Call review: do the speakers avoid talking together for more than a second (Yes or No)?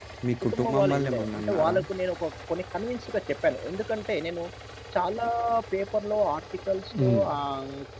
No